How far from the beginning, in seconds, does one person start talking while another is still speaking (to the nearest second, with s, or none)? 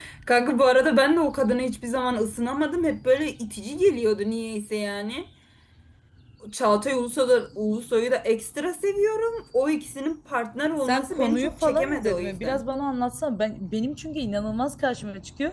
11 s